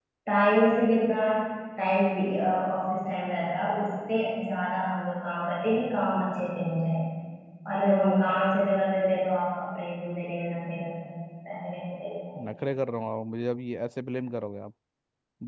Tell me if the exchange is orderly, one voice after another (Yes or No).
Yes